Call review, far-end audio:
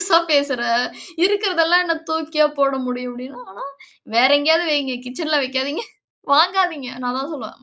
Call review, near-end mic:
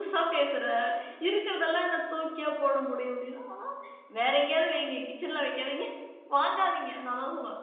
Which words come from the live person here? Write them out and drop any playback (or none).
none